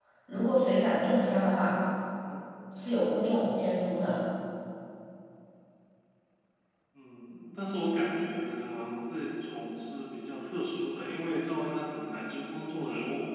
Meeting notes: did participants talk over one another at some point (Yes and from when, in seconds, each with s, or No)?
No